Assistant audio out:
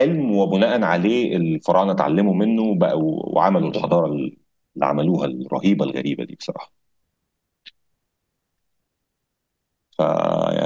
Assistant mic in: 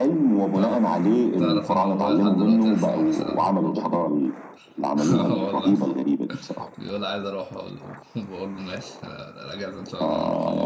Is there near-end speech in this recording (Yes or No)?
Yes